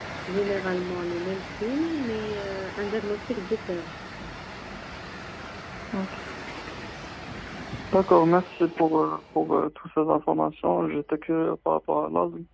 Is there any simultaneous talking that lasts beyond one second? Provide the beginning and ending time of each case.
none

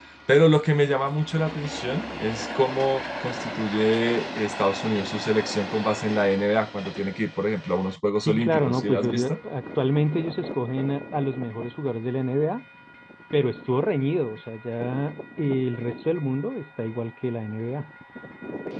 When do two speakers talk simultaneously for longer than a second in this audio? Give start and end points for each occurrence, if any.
8.1-9.4

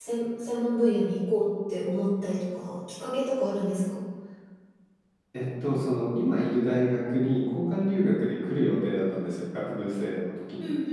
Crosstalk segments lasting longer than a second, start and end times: none

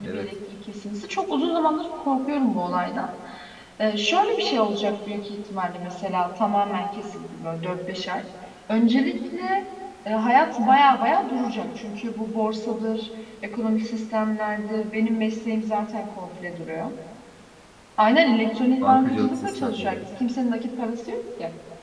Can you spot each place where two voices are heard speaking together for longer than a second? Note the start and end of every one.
18.8-20.0

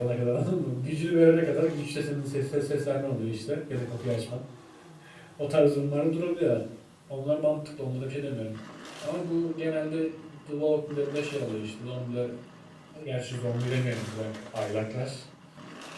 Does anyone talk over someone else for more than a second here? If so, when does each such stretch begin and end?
none

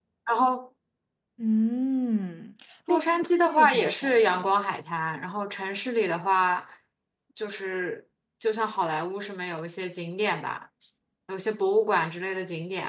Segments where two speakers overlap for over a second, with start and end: 2.9-4.5

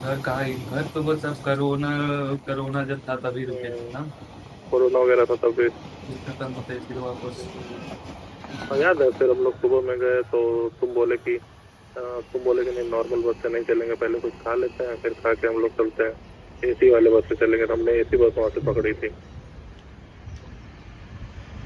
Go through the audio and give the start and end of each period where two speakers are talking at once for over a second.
none

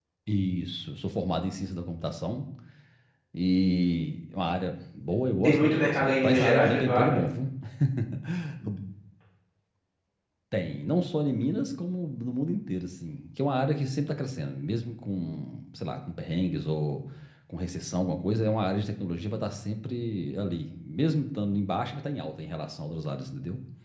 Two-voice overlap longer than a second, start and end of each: 5.4-7.2

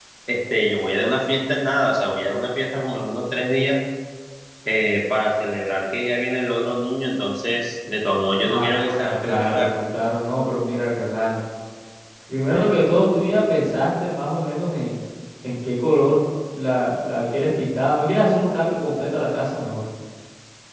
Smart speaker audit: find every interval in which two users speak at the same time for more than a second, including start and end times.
8.4-9.7

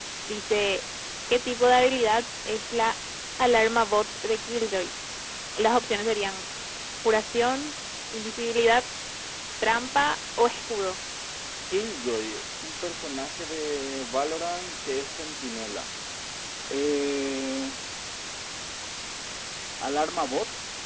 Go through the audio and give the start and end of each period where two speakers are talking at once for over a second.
none

